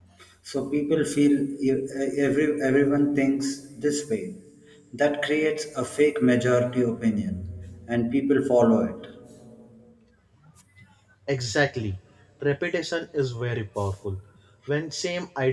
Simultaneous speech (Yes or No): No